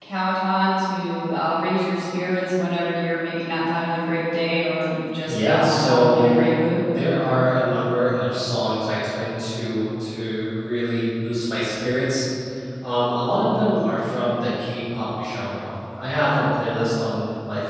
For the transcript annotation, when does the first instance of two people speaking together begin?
5.3 s

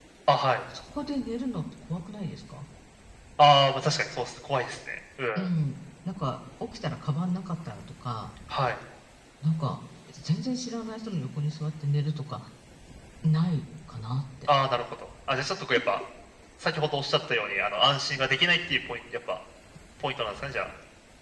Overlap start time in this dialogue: none

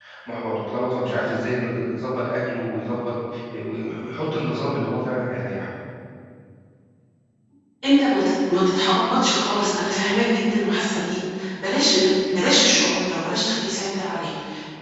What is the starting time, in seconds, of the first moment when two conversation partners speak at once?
none

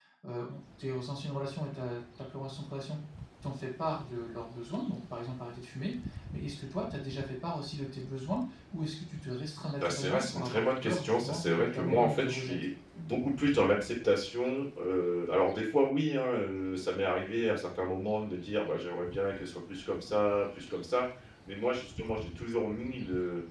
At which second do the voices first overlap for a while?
9.8 s

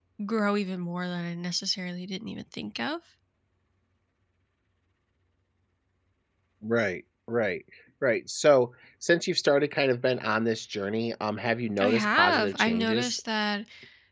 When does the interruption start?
11.8 s

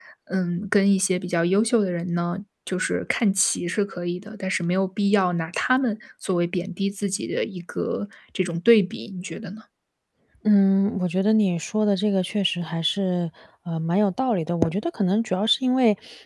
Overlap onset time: none

